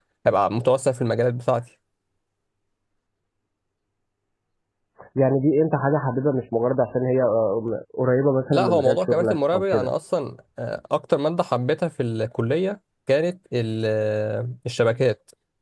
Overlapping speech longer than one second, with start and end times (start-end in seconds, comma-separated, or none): 8.5-9.9